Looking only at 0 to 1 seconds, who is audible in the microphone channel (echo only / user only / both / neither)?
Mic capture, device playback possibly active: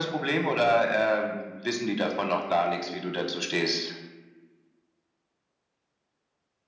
echo only